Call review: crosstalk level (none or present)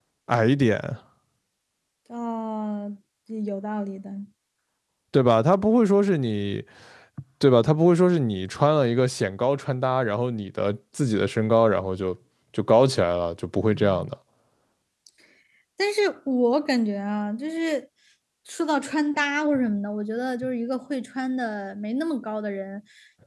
none